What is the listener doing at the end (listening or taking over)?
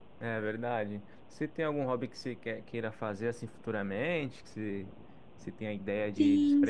taking over